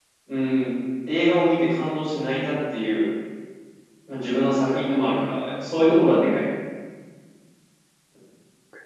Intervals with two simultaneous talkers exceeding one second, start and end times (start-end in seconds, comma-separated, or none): none